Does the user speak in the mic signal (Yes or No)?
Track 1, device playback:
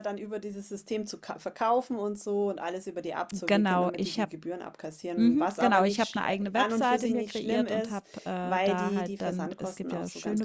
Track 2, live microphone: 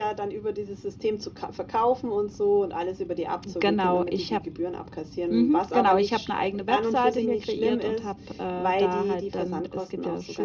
No